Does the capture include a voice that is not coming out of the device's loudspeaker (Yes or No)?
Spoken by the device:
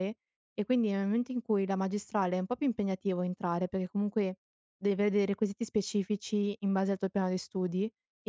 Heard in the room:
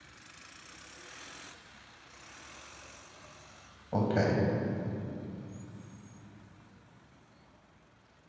Yes